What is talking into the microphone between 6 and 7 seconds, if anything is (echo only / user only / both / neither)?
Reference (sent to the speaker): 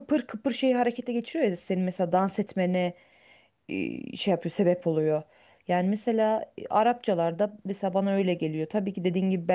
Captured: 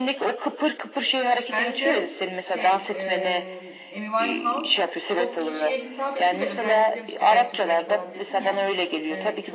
both